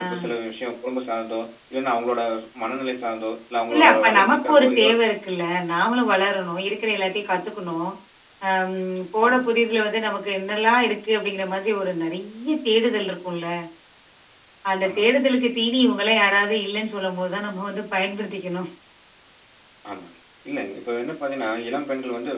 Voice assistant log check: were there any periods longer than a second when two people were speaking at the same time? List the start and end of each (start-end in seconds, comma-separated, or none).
3.7-5.0